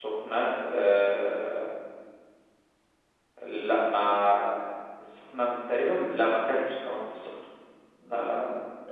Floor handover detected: Yes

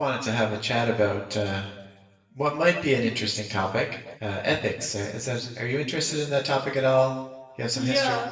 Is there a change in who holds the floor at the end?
Yes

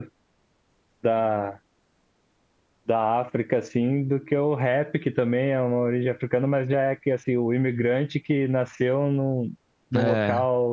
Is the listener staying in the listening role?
Yes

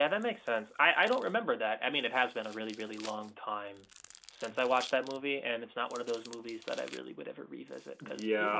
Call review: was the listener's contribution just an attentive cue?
No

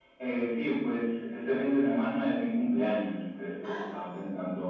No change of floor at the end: Yes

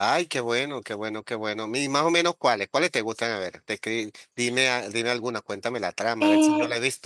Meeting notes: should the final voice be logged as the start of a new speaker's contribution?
Yes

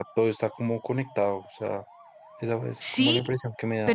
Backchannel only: No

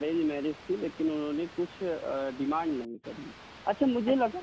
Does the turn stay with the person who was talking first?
Yes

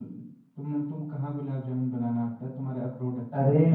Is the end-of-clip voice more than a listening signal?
Yes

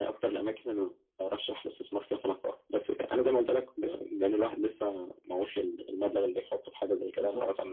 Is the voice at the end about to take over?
No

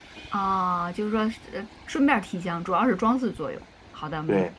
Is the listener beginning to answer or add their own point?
Yes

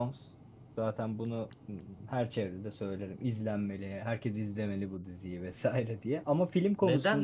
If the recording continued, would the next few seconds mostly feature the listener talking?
Yes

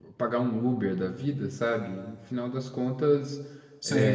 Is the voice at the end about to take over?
No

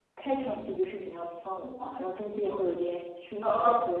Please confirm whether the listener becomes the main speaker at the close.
Yes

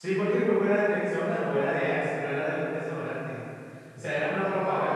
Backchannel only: No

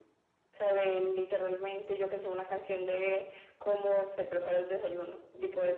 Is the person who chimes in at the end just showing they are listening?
No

